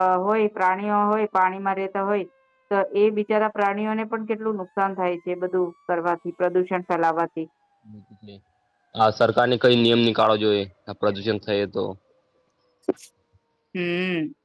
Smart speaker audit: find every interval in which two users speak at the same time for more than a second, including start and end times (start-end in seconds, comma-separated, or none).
none